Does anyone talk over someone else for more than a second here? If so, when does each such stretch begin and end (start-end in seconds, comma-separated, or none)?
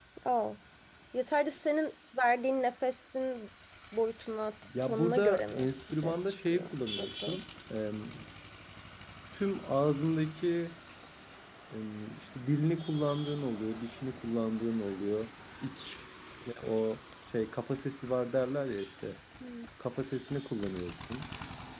4.8-7.4